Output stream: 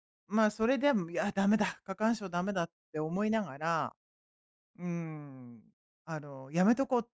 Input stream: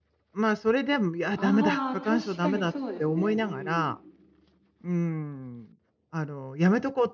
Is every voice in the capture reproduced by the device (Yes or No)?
No